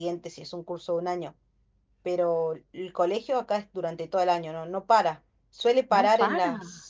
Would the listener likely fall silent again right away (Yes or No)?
Yes